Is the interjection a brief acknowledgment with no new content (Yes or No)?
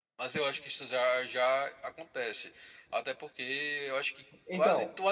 Yes